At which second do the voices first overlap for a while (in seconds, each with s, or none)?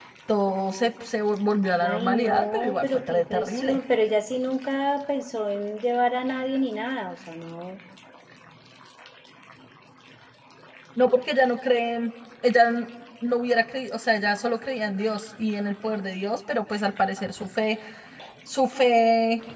1.8 s